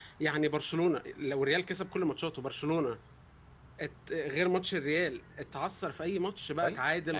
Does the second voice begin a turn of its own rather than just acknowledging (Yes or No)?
Yes